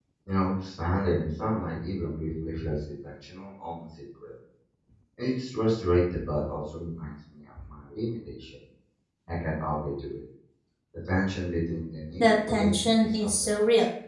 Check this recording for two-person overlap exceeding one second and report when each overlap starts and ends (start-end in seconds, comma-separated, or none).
12.2-13.6